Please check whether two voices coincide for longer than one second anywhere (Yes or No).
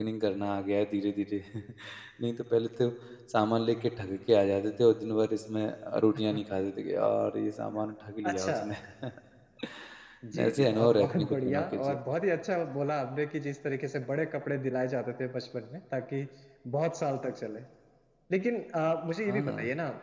Yes